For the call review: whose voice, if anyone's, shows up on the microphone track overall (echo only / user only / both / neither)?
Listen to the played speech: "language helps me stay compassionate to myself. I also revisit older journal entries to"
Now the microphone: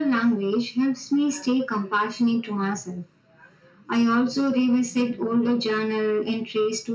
echo only